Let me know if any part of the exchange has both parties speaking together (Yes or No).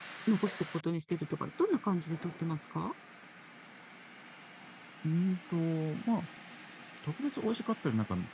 No